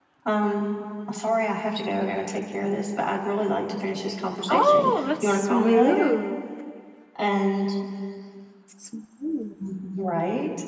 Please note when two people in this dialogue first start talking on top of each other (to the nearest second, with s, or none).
4 s